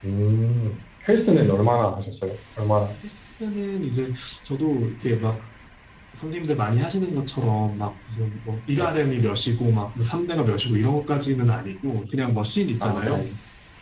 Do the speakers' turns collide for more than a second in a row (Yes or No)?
No